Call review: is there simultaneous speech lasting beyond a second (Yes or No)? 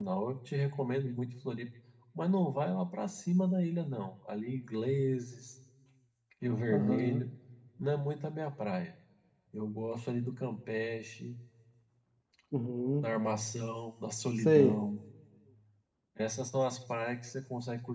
No